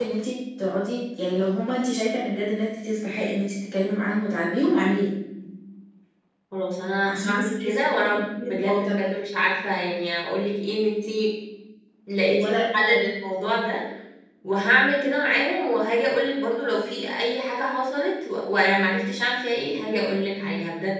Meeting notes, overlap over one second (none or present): present